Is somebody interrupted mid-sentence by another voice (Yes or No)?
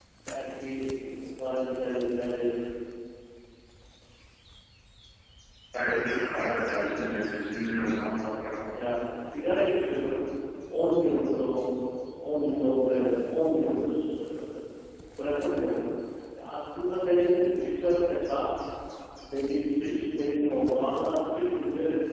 No